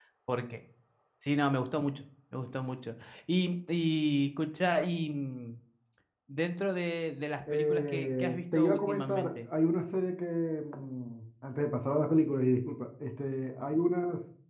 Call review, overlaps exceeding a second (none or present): present